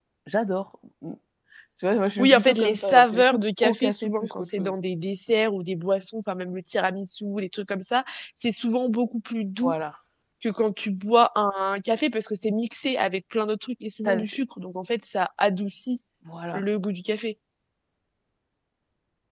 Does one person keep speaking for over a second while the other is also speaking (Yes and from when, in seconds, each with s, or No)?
Yes, from 2.2 s